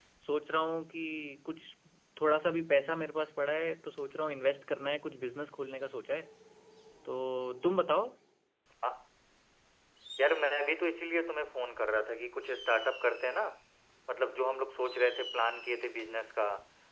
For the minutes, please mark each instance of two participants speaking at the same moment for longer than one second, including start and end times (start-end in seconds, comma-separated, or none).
none